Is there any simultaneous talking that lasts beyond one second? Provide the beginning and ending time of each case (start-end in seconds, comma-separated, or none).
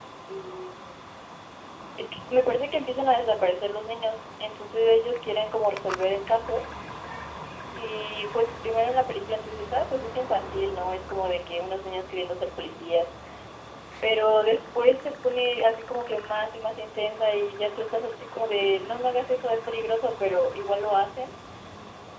none